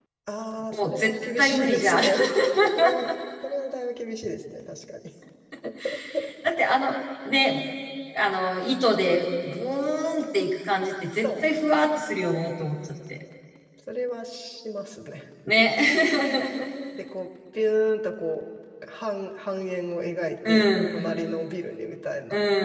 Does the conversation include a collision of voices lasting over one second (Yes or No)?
Yes